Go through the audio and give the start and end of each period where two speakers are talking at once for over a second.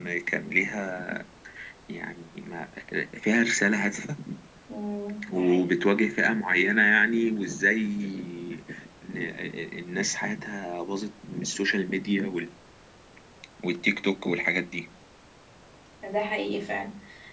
none

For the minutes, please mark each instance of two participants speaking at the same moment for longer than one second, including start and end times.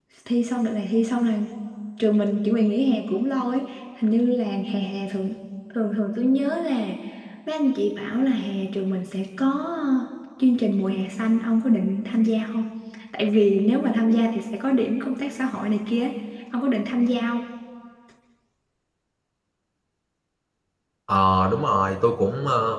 none

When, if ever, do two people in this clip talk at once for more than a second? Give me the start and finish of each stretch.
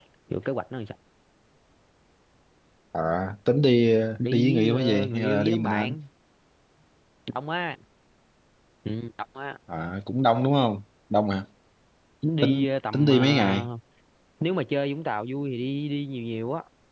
4.3-5.9, 12.4-13.7

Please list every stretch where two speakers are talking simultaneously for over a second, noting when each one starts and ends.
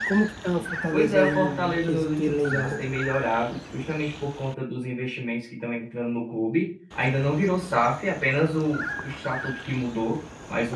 0.9-2.8

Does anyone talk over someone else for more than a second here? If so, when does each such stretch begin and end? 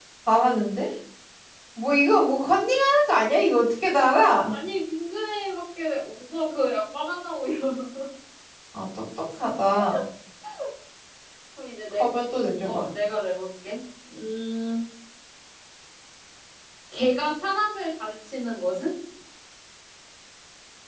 none

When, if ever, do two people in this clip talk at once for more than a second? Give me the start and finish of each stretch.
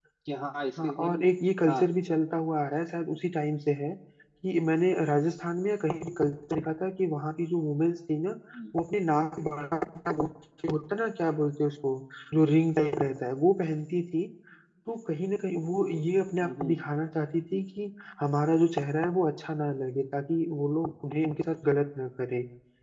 none

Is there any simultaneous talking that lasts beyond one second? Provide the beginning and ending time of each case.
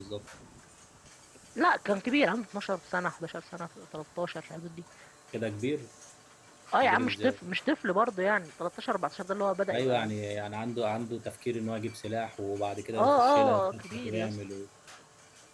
13.0-14.4

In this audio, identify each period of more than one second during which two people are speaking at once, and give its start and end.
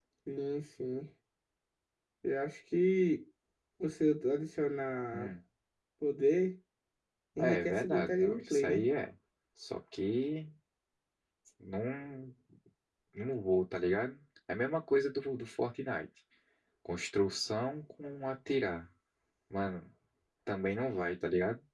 7.4-8.8

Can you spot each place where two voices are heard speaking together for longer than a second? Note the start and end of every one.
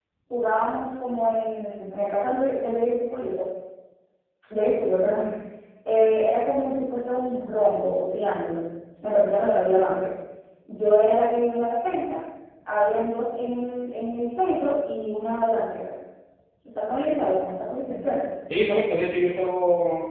none

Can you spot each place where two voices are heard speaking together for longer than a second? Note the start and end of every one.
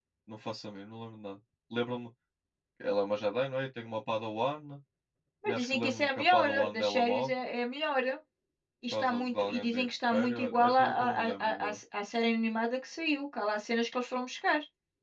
5.5-7.3, 8.9-11.8

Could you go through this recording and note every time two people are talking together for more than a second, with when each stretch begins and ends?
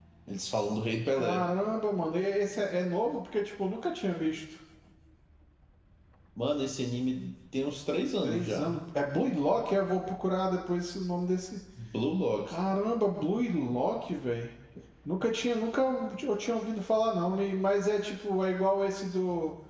none

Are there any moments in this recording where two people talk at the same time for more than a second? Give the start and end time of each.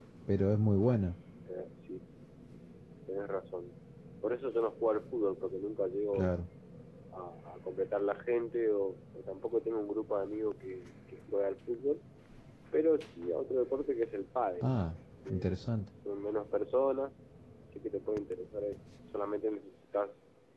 none

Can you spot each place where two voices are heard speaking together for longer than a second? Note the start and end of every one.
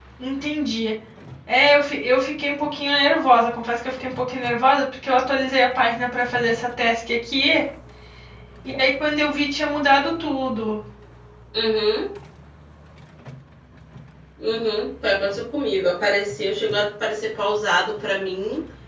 none

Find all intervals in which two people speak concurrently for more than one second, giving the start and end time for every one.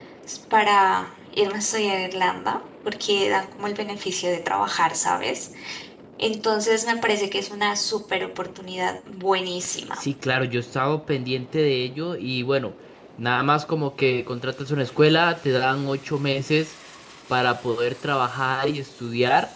none

